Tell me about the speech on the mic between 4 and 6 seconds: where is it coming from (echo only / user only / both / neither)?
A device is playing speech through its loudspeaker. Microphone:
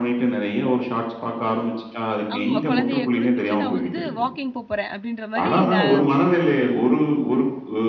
both